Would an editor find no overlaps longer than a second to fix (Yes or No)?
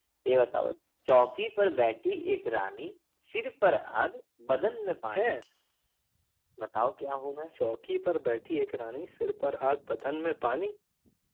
Yes